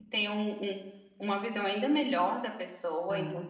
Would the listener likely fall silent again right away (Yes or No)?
Yes